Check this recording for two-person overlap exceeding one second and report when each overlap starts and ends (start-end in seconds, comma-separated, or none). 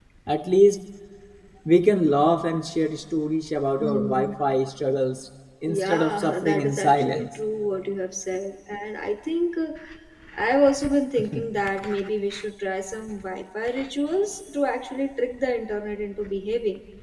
5.7-7.2